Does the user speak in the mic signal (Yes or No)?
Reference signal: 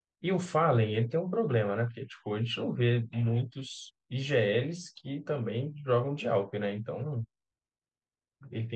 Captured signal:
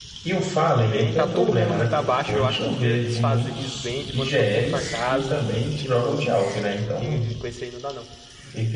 Yes